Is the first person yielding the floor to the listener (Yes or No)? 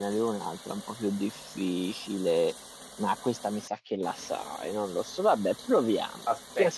No